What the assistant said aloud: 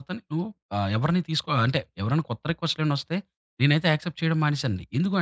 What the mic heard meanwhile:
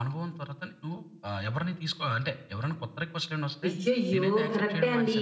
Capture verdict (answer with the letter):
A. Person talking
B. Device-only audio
A